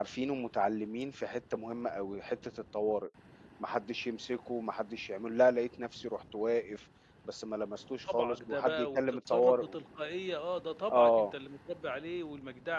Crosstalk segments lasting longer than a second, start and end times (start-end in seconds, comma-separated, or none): 8.1-9.8